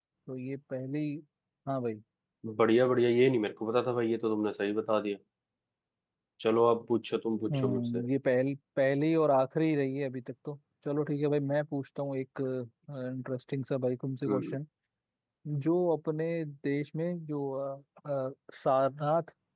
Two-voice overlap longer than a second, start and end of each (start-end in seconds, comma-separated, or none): none